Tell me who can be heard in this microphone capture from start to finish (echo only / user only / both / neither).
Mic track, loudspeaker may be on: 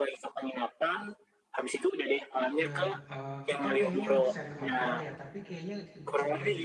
both